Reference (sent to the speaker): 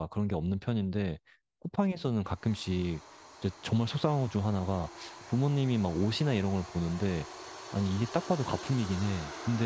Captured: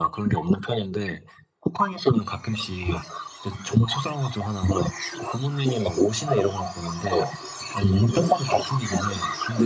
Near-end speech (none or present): none